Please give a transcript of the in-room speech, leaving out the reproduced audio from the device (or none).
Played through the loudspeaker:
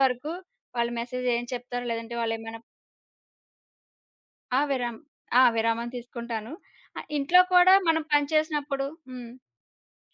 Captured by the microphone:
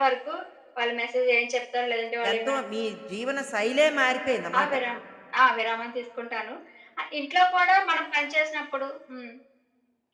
ఎంతో మీ జీవన శైలే మారిపోయిందన్నమాట.